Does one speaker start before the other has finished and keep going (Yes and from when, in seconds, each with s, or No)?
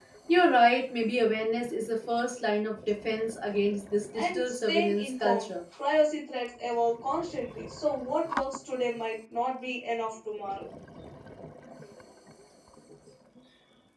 Yes, from 4.1 s